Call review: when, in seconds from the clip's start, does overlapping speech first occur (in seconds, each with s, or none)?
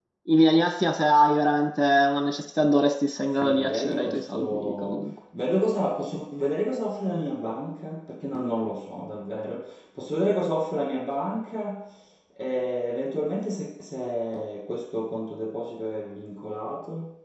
3.4 s